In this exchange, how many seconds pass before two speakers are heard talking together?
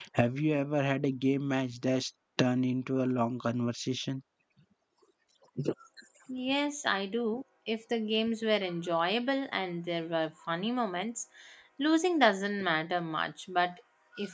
none

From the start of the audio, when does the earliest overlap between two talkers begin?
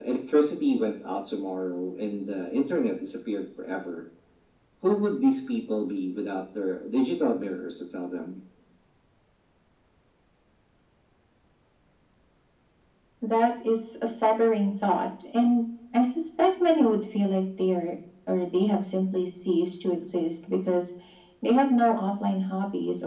none

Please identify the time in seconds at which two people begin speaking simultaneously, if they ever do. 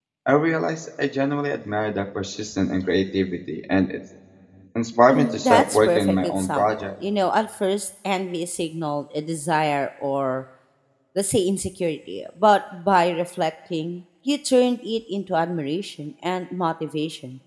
5.1 s

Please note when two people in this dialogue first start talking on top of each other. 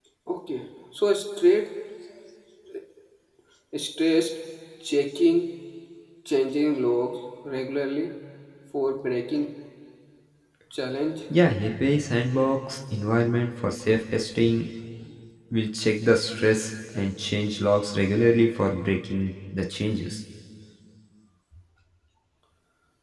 none

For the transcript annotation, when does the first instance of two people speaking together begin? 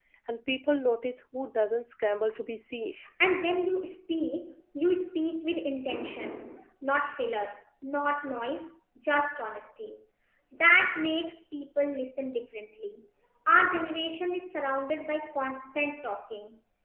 none

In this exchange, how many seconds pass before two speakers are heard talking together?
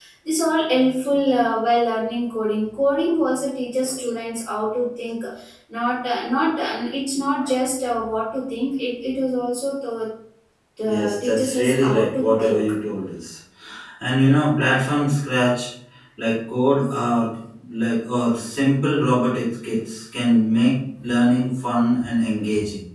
10.8 s

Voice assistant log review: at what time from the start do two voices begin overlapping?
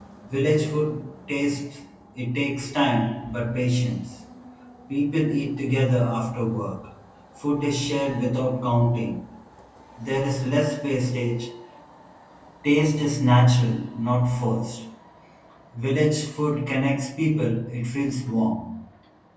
none

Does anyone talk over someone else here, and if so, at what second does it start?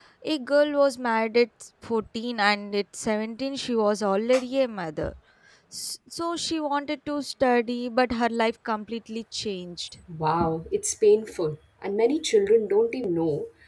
none

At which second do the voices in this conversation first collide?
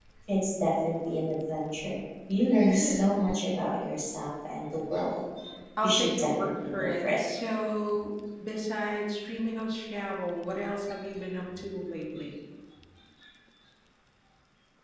5.8 s

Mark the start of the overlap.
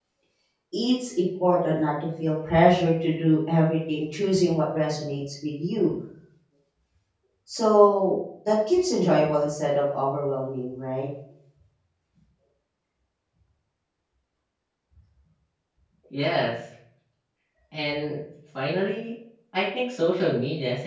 none

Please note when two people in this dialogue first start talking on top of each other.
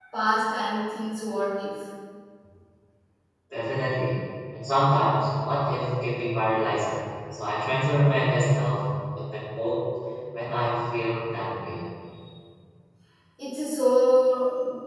none

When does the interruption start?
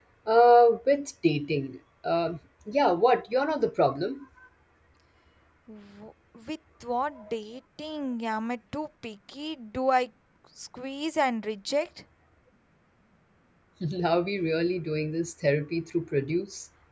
none

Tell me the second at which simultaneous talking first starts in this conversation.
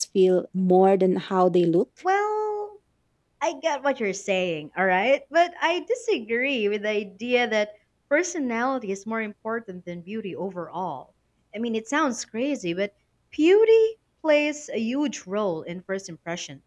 none

